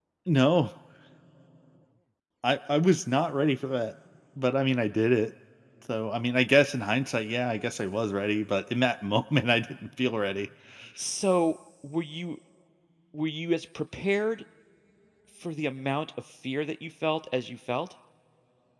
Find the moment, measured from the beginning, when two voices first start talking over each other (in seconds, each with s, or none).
none